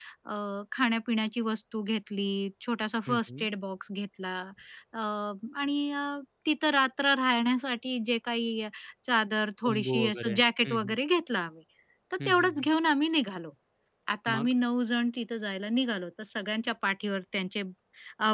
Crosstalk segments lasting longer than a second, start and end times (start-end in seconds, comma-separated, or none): 9.6-11.0